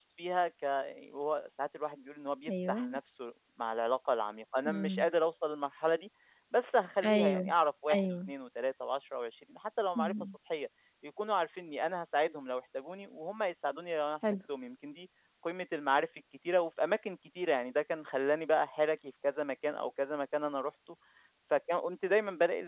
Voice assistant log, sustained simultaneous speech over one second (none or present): none